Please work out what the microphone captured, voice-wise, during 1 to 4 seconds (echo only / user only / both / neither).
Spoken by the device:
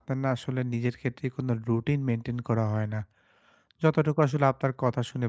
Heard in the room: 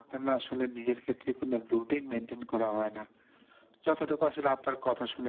echo only